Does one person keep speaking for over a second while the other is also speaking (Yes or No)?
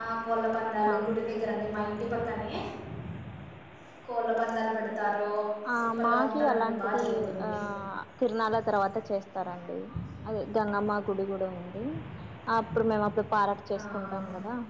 Yes